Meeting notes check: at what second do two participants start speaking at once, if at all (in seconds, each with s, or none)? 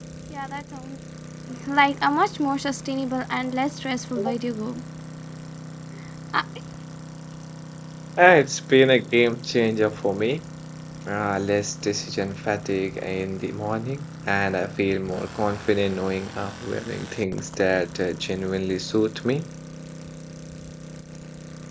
none